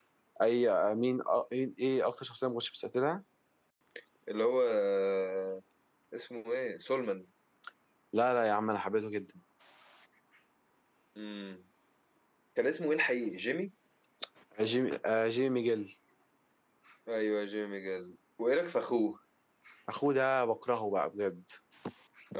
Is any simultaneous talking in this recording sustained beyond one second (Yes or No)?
No